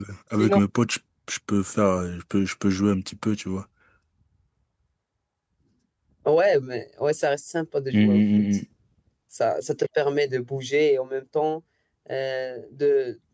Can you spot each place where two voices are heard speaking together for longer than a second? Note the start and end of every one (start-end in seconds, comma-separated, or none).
none